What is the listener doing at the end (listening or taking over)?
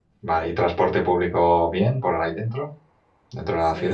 taking over